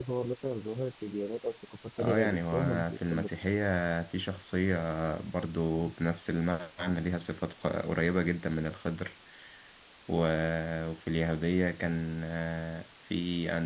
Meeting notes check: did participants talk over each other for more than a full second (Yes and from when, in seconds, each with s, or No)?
Yes, from 2.0 s